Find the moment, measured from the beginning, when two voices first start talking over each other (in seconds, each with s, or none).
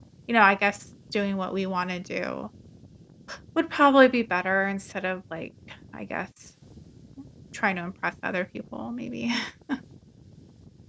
none